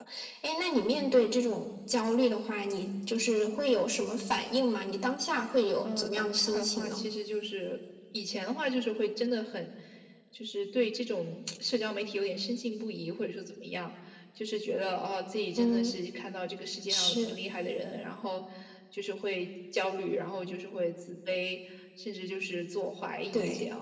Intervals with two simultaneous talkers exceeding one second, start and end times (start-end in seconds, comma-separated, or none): 5.8-7.0